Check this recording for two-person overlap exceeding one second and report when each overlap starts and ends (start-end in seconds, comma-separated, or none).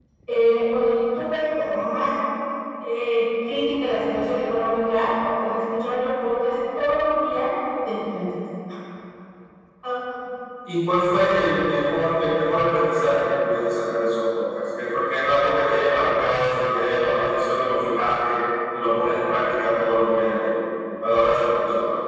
none